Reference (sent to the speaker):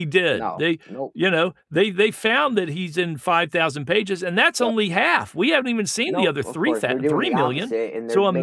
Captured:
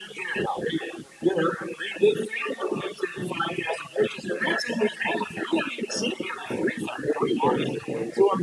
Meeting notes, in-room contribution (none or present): none